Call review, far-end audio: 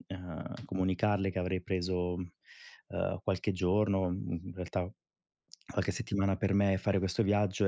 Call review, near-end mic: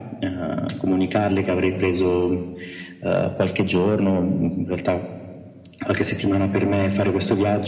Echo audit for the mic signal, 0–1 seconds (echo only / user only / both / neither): echo only